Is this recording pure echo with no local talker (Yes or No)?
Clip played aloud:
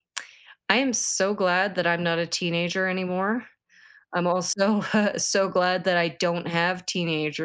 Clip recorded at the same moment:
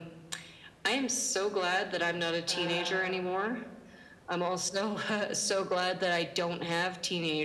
No